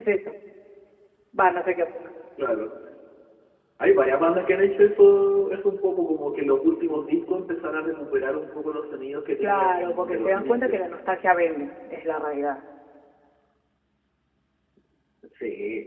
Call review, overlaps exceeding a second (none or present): present